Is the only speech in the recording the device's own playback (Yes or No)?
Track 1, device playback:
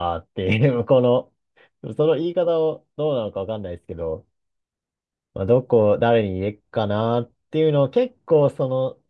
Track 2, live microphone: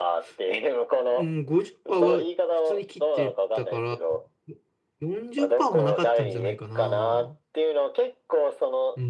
No